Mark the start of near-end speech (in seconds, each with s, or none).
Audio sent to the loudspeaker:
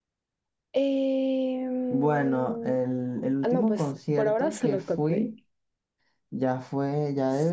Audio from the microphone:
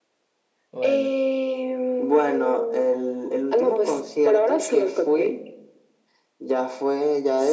0.7 s